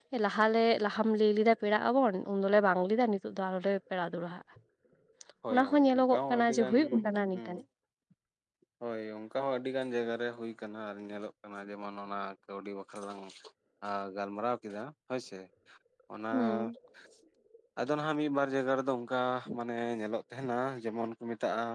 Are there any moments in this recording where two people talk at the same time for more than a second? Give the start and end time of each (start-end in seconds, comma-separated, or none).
5.5-6.8